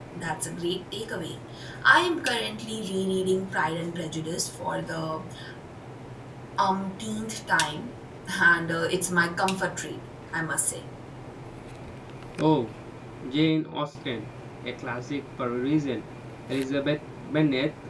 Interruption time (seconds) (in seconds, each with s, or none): none